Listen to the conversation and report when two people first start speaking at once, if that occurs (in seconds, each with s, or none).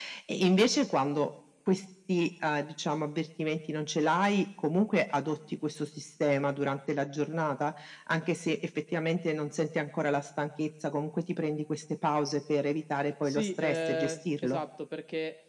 13.2 s